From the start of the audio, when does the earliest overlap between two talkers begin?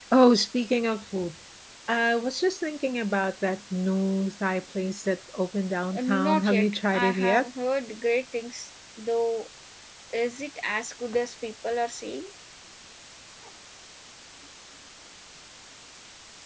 5.9 s

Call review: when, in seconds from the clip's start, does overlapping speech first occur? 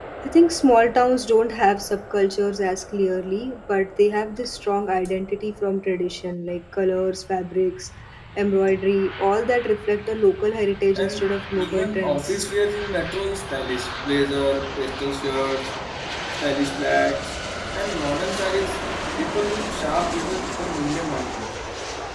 11.0 s

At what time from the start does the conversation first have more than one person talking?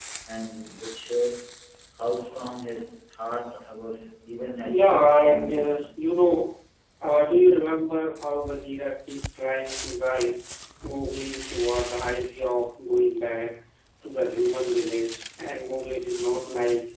4.7 s

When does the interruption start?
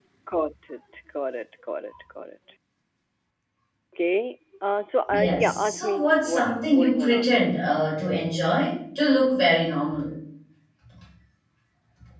5.1 s

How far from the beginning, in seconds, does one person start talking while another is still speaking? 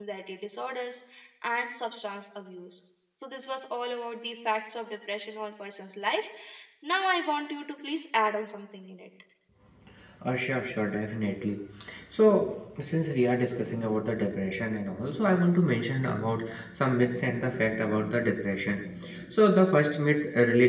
none

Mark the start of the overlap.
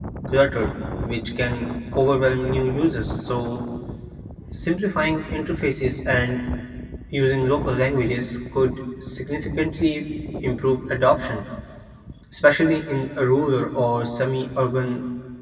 none

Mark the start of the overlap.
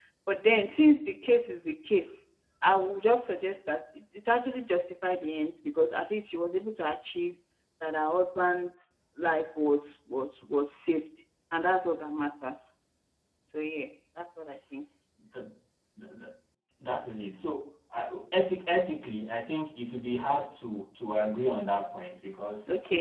none

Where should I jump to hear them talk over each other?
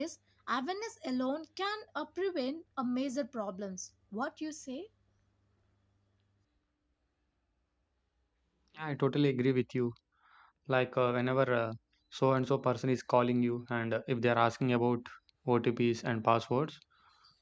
none

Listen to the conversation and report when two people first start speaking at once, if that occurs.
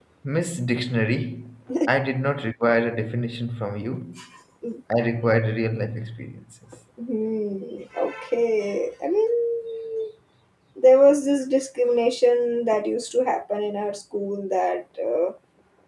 none

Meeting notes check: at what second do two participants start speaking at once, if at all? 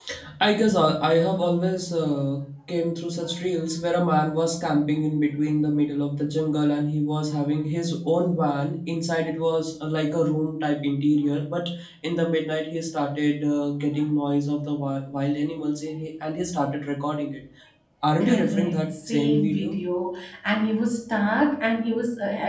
18.2 s

